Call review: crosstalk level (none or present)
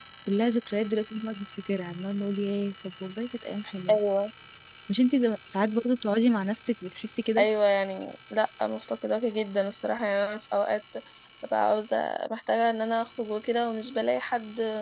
none